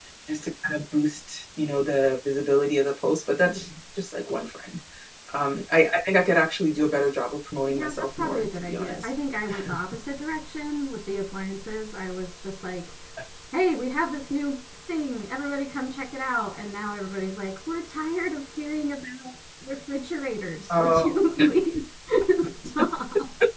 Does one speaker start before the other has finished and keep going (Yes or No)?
Yes